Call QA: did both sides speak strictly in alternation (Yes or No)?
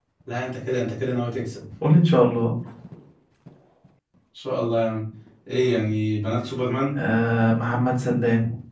Yes